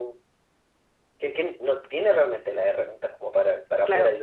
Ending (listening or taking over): listening